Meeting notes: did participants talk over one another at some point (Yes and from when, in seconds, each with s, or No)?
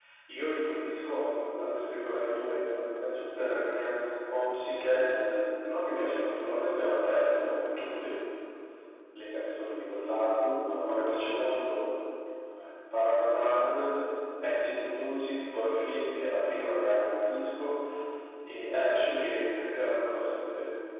No